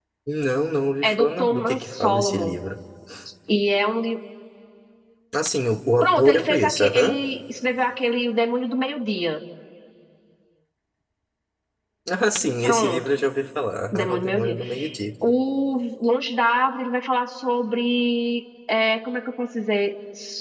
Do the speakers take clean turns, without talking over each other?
No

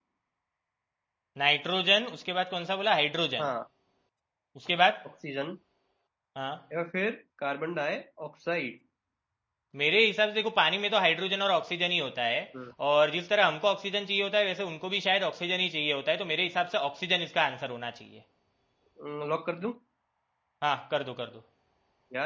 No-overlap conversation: Yes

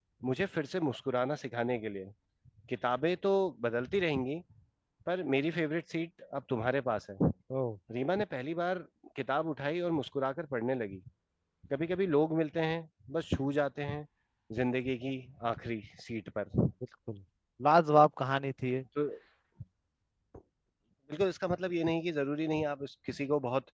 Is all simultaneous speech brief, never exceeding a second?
Yes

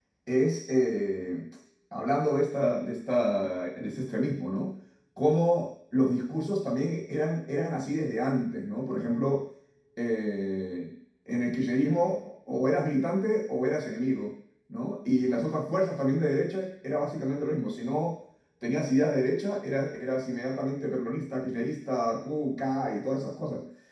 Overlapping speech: No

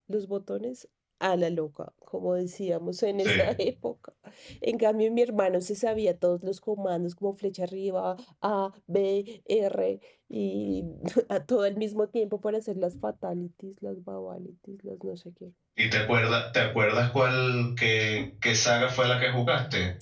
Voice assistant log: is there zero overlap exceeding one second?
Yes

